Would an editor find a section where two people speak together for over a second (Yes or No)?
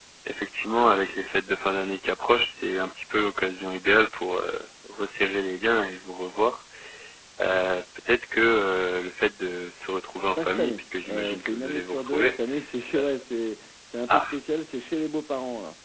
Yes